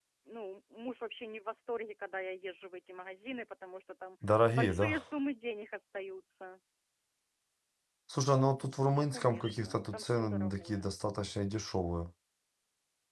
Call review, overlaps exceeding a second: present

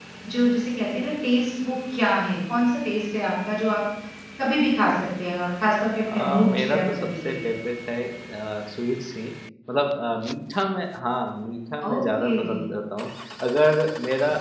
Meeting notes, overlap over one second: present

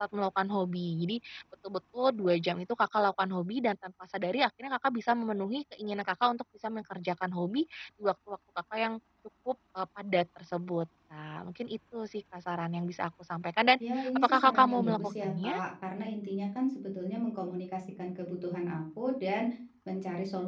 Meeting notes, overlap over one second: present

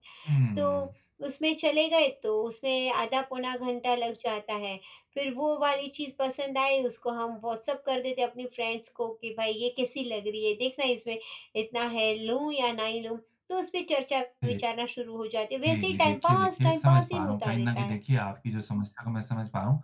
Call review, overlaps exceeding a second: present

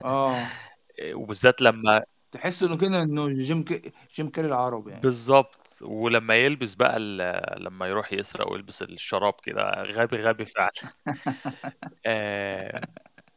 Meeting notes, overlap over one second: none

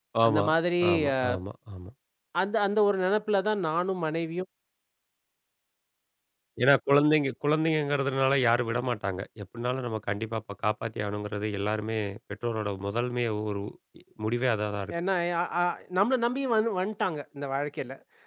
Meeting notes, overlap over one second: none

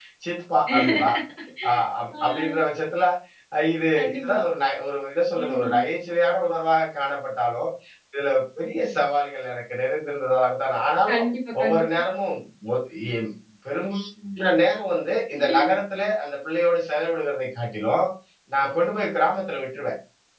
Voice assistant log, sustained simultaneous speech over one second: none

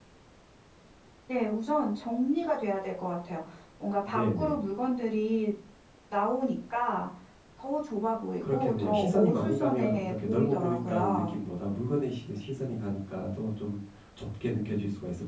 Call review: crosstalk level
present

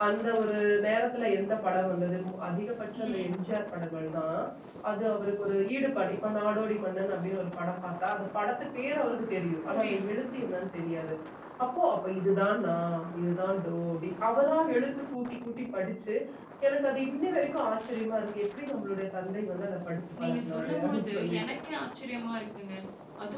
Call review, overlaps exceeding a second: present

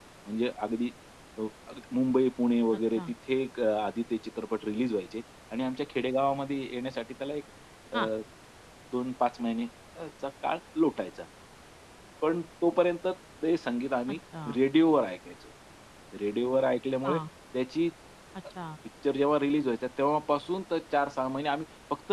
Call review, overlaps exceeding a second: none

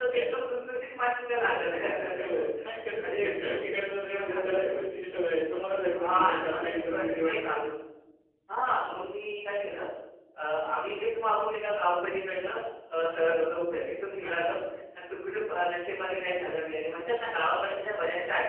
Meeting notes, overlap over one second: present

